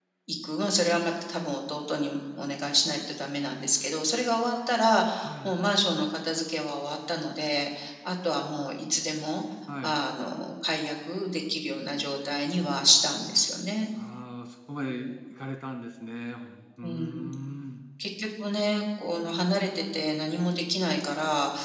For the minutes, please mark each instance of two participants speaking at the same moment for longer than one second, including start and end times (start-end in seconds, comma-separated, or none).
none